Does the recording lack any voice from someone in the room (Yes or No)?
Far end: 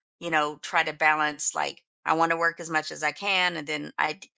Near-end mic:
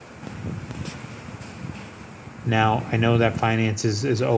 No